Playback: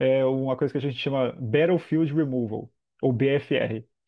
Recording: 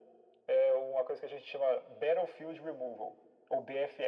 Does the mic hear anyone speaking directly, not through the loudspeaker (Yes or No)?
No